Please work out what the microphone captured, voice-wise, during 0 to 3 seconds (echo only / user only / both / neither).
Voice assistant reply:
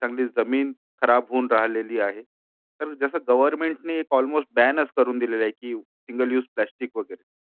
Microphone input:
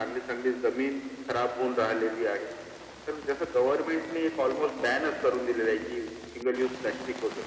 echo only